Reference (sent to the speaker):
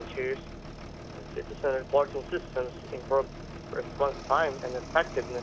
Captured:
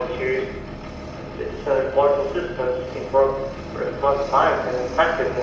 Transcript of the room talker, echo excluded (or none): none